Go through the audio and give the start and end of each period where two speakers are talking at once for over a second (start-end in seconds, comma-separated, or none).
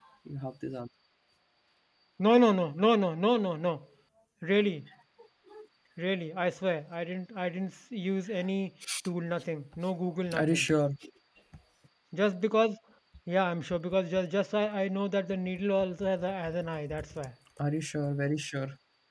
none